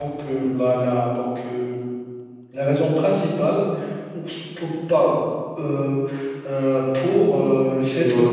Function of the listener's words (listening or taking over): listening